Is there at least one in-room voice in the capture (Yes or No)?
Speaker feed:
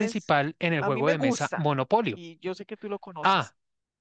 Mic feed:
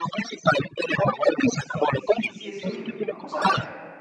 Yes